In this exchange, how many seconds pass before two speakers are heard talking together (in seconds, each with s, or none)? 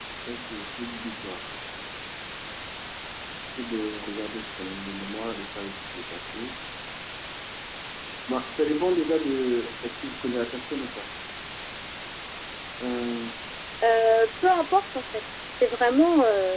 none